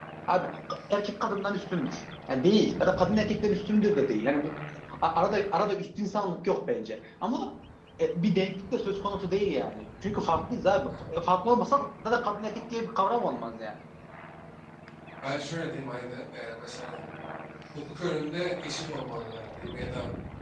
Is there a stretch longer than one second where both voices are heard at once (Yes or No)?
No